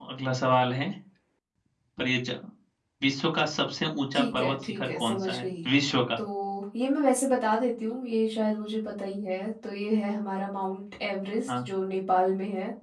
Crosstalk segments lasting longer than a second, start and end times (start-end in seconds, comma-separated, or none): 4.1-5.4